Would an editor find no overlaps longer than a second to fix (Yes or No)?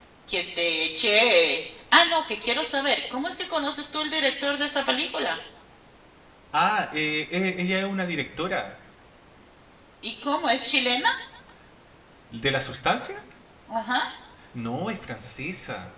Yes